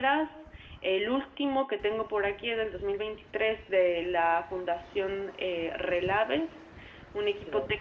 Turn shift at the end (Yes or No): No